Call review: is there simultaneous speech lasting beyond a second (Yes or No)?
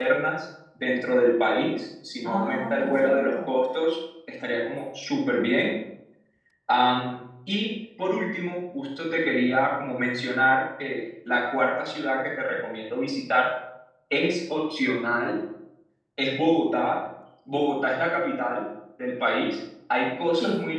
Yes